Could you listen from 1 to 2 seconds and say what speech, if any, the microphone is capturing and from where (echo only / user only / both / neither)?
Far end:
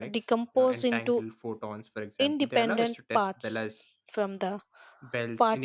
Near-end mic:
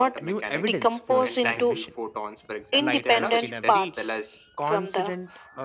both